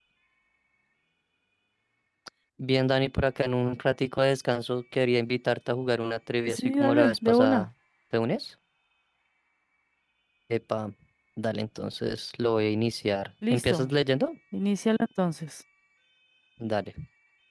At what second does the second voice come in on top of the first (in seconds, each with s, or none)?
6.5 s